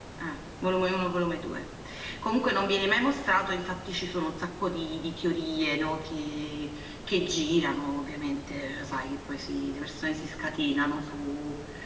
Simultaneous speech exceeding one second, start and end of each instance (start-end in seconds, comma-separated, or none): none